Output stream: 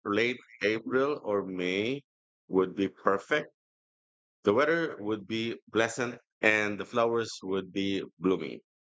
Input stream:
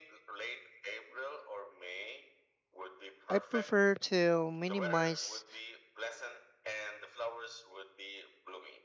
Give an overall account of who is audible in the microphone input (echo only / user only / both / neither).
both